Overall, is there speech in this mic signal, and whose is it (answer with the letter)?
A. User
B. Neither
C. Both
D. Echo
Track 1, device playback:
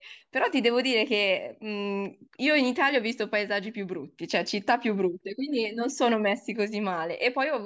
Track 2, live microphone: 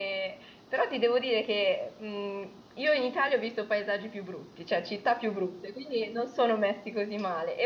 D